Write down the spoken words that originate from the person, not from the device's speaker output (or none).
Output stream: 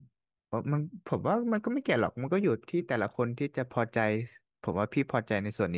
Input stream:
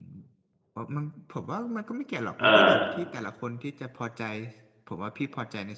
อ่า